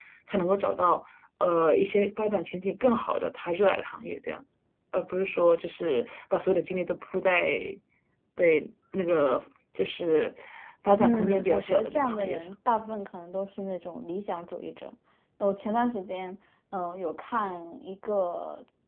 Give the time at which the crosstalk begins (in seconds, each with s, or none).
11.0 s